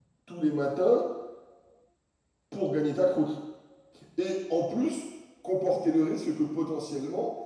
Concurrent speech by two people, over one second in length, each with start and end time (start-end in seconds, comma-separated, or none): none